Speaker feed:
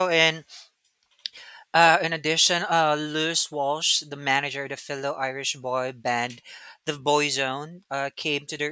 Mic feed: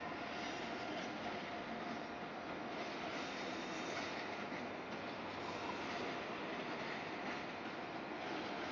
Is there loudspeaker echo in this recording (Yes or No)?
No